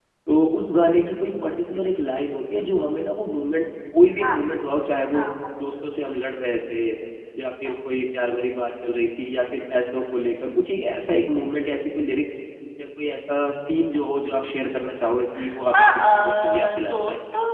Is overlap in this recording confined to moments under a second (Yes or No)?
No